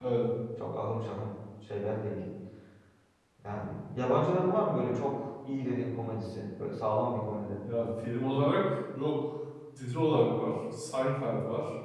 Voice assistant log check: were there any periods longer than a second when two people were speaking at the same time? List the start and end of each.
none

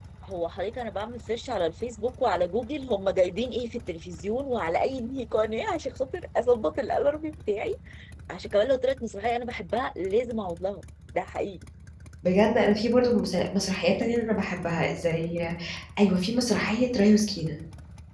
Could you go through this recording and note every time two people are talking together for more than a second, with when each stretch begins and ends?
none

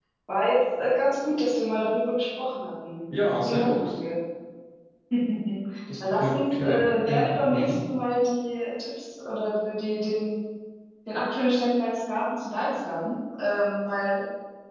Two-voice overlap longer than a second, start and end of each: 6.1-7.8

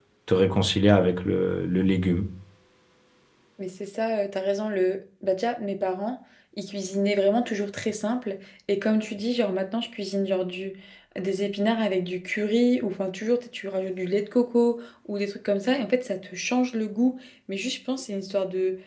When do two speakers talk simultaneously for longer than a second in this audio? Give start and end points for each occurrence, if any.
none

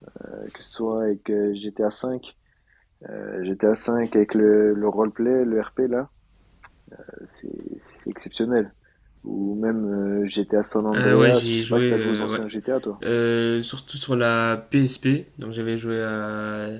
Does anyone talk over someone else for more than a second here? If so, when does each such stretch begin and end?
10.9-12.4

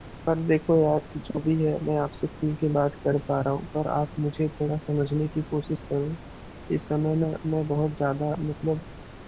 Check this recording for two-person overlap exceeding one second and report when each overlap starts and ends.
none

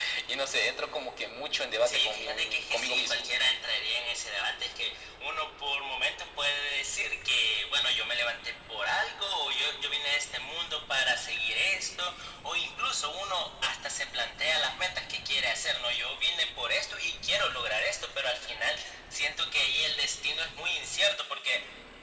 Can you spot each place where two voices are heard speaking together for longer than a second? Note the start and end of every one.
1.9-3.3

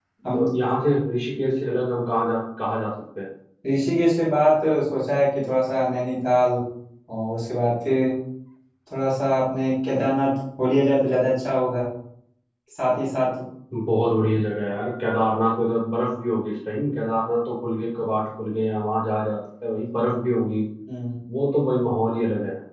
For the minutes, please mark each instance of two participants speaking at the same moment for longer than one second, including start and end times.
none

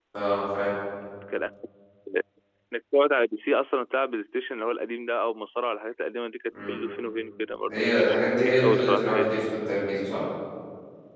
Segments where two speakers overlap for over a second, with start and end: 7.7-9.2

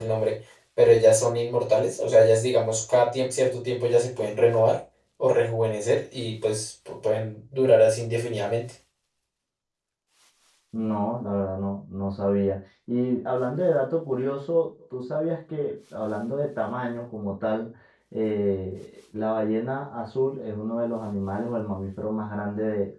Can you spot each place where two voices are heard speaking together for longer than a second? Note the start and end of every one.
none

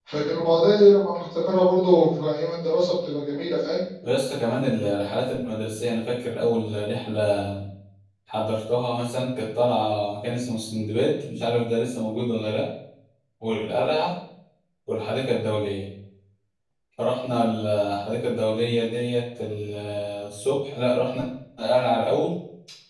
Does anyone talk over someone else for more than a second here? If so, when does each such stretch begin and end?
none

